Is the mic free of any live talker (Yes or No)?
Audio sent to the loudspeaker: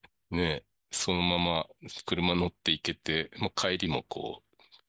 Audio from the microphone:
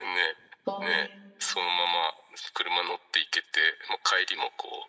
No